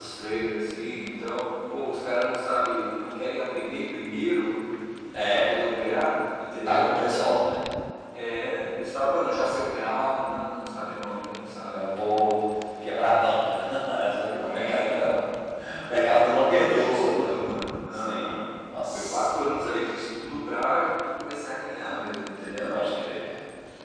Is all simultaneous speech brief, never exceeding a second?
No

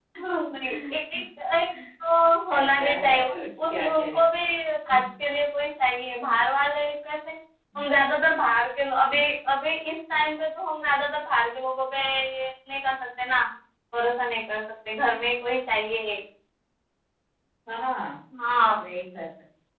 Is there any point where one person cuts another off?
Yes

